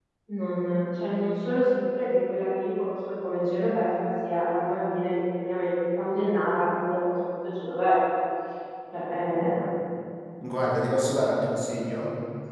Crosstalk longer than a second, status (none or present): none